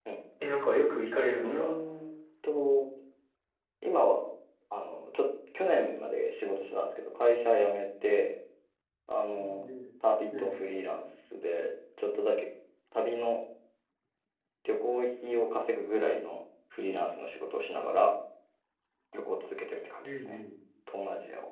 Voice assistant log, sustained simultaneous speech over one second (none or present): none